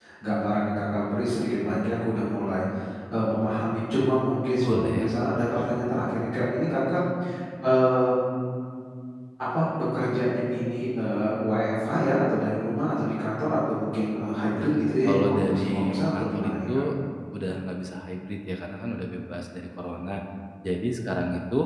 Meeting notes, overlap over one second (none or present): present